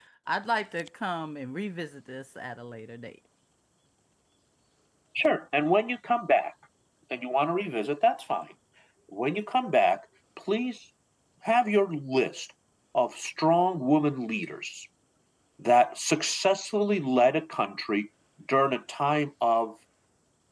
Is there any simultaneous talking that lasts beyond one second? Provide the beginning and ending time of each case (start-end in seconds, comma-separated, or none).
none